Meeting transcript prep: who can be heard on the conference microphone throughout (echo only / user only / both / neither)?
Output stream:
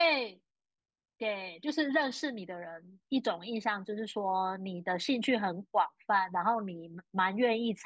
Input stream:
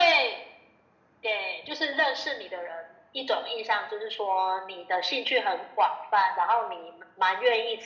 echo only